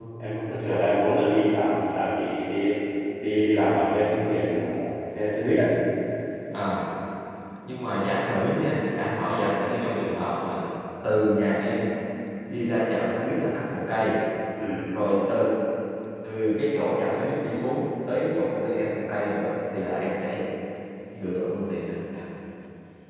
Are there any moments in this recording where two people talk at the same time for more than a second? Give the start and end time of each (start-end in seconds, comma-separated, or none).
none